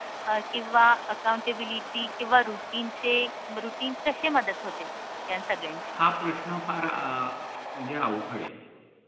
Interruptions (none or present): none